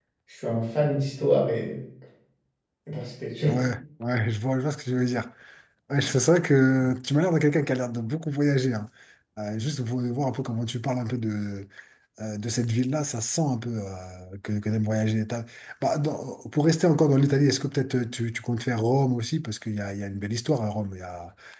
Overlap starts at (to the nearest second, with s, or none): none